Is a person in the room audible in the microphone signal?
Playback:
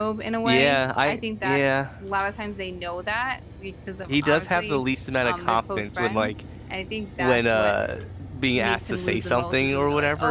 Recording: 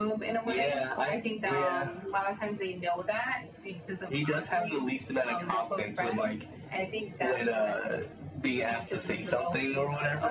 Yes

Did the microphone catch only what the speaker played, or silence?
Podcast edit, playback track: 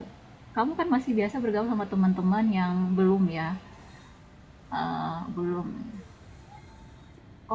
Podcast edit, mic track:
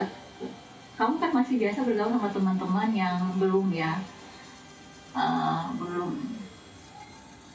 Yes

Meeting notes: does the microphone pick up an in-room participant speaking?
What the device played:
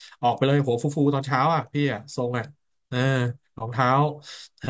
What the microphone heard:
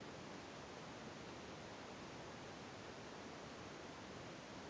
No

